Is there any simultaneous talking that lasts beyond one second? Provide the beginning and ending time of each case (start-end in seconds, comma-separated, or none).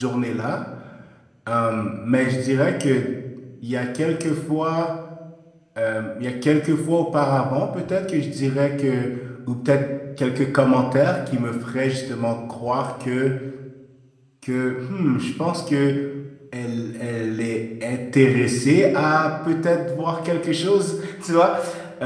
none